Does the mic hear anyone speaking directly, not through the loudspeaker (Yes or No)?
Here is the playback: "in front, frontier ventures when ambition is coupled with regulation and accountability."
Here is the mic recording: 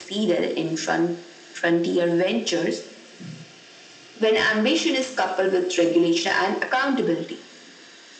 No